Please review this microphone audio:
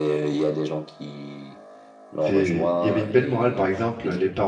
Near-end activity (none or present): present